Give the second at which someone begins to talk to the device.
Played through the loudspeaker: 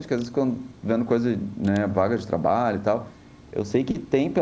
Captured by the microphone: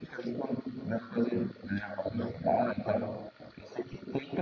none

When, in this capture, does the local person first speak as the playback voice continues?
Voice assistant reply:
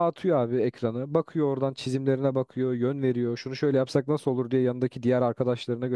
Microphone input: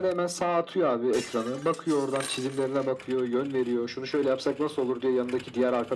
none

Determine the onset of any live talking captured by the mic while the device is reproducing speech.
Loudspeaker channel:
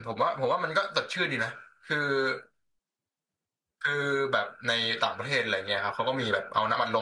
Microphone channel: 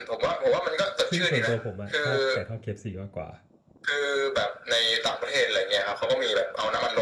1 s

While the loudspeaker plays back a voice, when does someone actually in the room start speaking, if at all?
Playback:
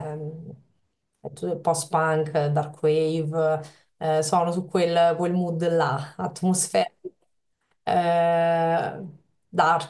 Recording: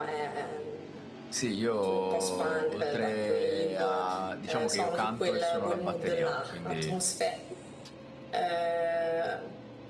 1 s

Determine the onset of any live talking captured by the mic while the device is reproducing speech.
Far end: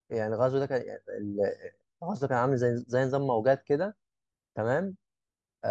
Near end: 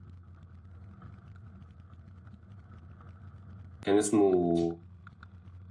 4 s

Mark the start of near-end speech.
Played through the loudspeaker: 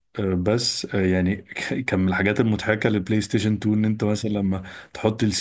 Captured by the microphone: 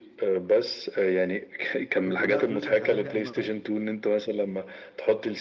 2 s

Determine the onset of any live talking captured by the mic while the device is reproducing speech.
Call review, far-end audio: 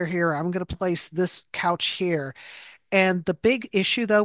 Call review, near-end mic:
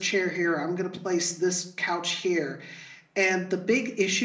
none

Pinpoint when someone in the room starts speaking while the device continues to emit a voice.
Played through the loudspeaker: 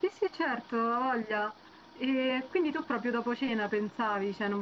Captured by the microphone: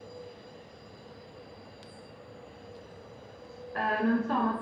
4 s

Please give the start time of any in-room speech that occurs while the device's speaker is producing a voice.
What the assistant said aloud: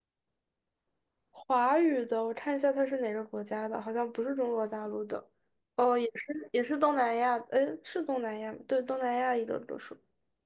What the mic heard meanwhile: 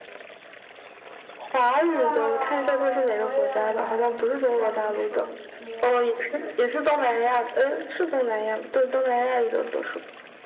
2 s

